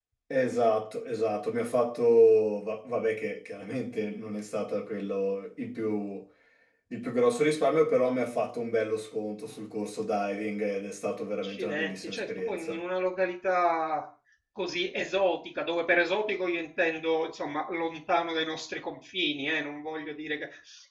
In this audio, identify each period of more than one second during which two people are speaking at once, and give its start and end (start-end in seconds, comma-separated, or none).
11.4-12.8